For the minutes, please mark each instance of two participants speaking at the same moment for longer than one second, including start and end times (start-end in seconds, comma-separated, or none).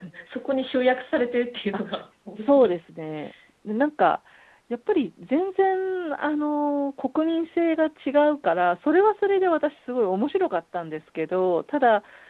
none